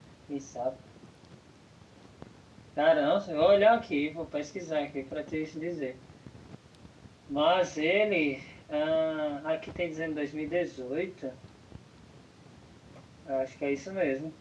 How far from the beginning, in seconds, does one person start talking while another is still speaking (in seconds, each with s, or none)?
none